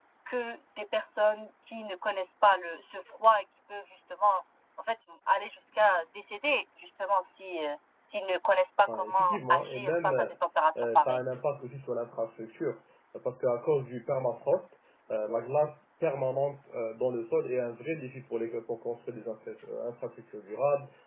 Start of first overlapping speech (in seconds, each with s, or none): 8.9 s